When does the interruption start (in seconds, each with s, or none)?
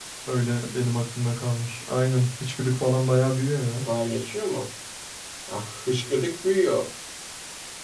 none